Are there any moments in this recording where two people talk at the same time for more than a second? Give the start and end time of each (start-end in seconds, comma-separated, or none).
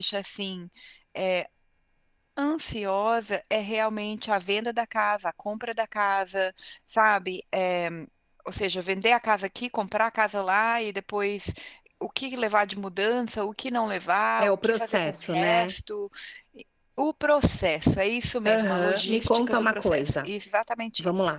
14.4-15.7, 18.4-20.3